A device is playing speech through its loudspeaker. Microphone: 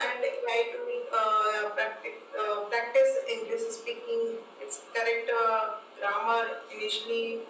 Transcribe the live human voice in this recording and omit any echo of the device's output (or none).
none